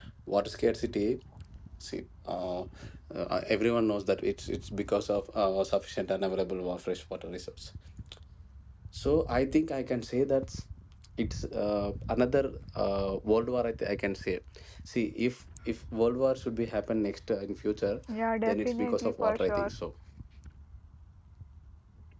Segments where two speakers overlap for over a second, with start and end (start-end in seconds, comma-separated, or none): 18.4-19.7